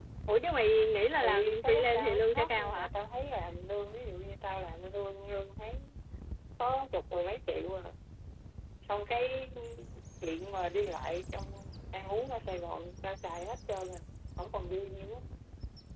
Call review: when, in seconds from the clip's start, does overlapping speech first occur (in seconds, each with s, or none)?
1.2 s